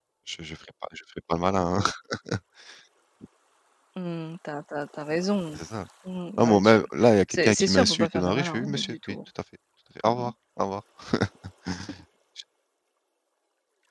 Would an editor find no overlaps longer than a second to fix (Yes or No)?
No